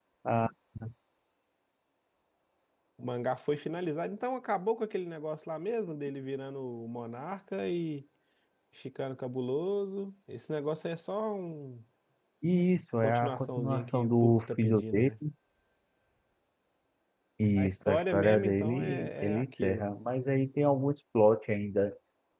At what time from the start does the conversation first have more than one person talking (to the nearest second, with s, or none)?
13 s